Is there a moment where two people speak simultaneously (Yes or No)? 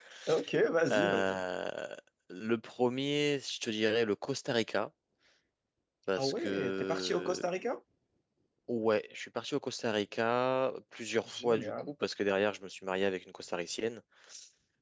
Yes